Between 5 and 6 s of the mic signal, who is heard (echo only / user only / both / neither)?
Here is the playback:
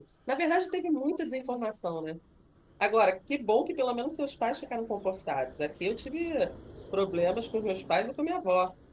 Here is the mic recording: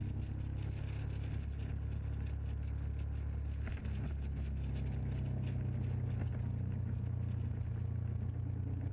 neither